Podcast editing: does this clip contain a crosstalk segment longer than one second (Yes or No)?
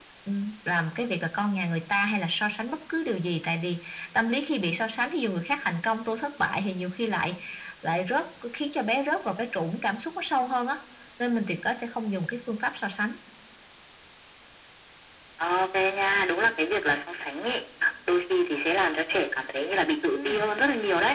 No